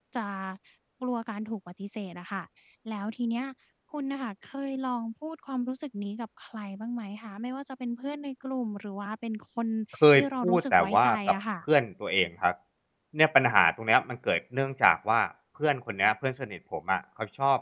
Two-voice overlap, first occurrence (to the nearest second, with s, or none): 10 s